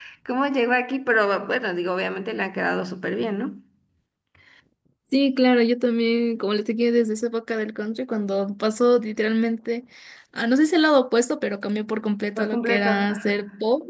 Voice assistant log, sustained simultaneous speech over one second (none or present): present